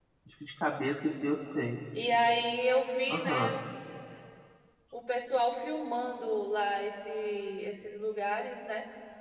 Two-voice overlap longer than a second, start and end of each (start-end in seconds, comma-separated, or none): none